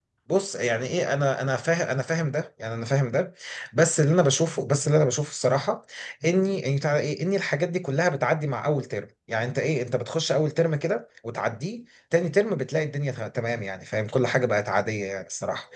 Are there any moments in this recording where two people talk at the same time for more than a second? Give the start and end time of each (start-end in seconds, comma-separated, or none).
none